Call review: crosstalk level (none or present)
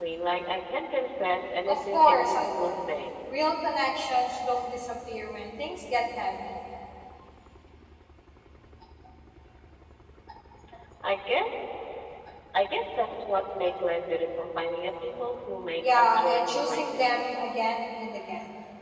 present